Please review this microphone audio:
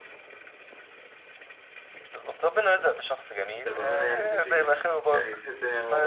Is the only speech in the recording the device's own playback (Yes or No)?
No